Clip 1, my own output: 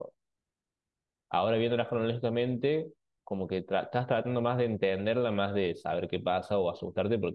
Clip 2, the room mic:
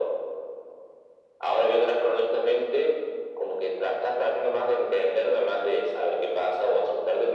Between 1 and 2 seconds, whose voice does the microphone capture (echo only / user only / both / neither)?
echo only